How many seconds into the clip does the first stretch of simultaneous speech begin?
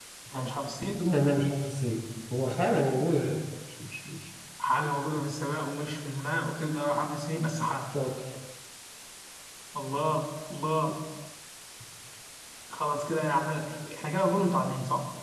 none

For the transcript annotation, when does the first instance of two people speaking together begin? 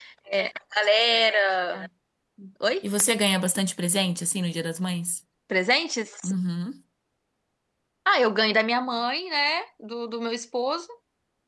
none

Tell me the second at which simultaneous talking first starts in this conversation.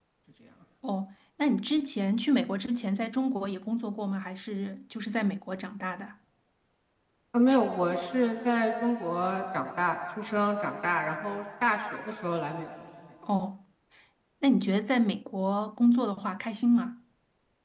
none

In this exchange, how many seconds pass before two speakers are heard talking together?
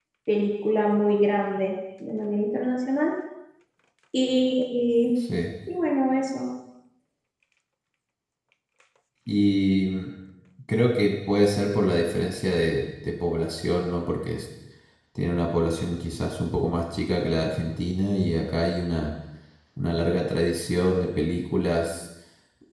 none

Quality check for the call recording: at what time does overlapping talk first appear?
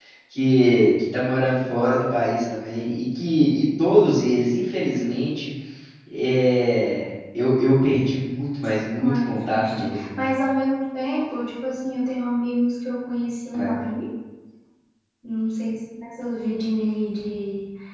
9 s

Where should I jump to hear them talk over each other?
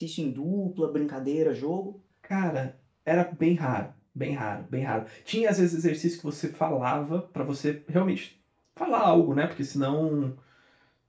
none

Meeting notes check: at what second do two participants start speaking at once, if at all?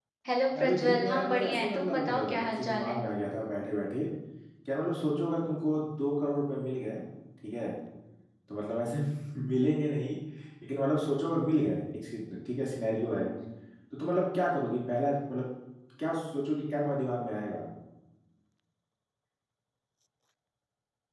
1 s

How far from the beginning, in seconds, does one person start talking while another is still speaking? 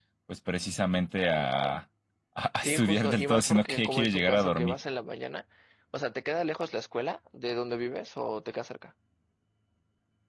3 s

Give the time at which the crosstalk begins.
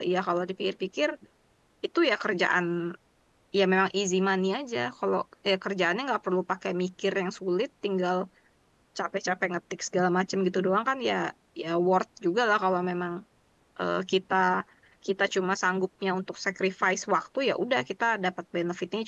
none

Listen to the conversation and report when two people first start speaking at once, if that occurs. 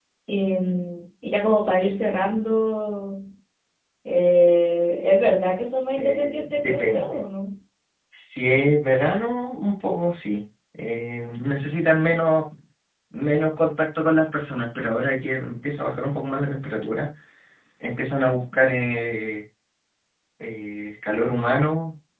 6 s

